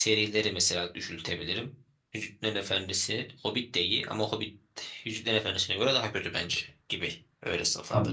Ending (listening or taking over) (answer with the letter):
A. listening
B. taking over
B